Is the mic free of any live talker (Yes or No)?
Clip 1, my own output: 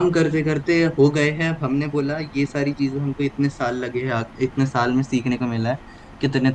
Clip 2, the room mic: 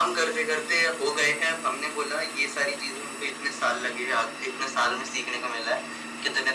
Yes